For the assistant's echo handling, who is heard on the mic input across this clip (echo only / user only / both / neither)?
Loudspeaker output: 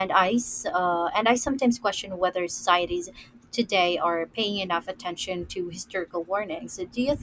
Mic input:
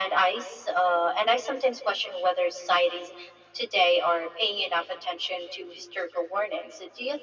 echo only